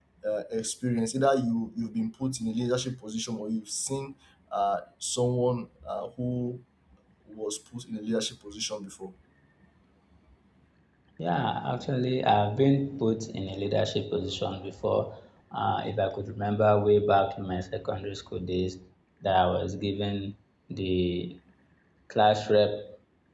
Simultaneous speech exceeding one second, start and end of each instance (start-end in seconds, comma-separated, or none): none